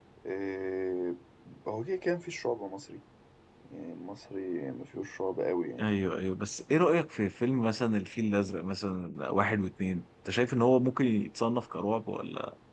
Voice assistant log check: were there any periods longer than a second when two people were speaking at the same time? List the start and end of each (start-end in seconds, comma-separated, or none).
none